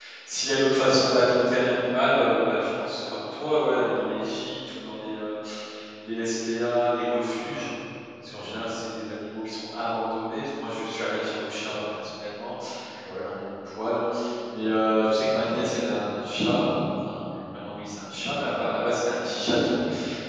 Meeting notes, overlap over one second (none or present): none